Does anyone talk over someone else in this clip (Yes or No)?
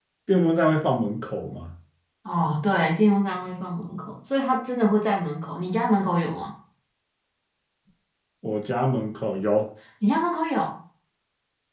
No